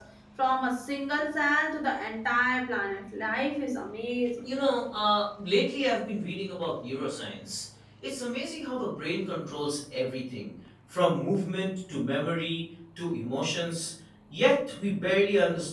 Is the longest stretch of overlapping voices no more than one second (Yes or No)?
Yes